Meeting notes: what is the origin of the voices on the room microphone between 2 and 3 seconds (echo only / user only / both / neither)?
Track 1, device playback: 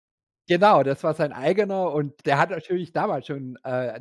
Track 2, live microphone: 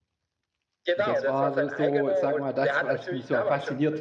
both